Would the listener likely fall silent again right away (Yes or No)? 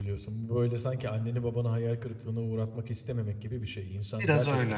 Yes